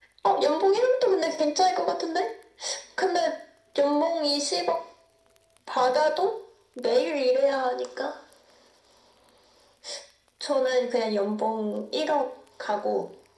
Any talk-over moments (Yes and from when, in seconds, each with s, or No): No